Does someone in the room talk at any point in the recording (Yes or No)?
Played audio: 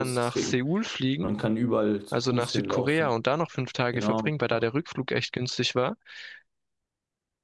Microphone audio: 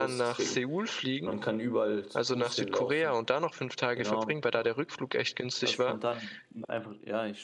Yes